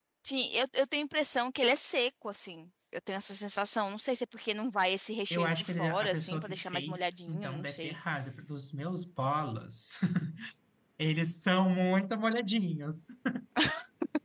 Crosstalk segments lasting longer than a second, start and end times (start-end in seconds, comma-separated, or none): 5.3-8.0